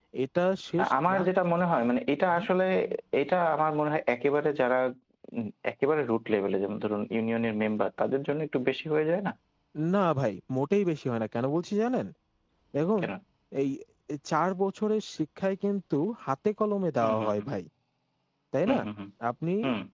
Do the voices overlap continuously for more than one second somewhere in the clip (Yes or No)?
No